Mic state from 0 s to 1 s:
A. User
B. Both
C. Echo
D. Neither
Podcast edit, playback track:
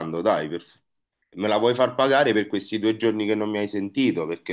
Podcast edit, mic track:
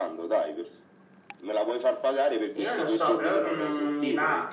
C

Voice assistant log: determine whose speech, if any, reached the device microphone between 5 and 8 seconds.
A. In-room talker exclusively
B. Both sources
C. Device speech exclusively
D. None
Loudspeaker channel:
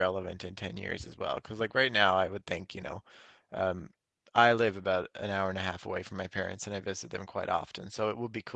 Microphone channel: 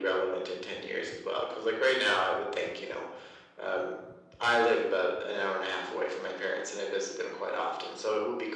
C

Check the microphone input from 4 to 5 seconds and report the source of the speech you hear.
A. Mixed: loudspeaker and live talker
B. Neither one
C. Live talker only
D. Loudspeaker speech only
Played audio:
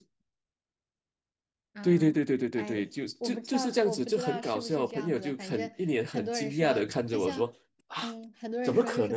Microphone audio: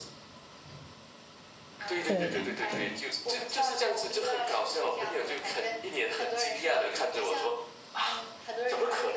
D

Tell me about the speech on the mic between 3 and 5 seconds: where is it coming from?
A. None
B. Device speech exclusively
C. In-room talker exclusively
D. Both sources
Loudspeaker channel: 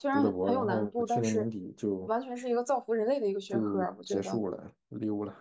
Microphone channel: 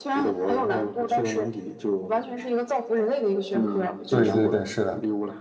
D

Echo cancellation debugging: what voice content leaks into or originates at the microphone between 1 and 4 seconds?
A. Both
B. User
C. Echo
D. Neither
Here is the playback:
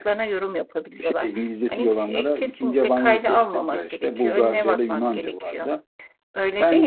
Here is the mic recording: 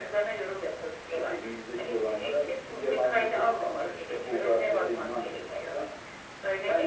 C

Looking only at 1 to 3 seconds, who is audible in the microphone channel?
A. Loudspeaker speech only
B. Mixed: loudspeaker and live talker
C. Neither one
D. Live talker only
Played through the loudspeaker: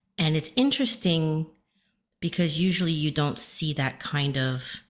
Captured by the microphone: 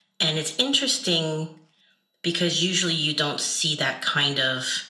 A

